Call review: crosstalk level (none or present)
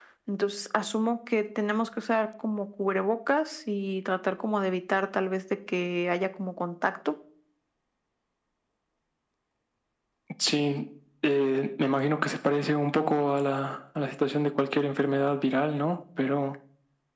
none